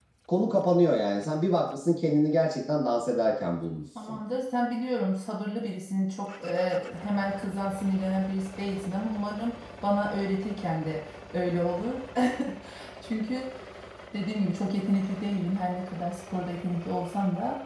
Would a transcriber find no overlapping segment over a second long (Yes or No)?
Yes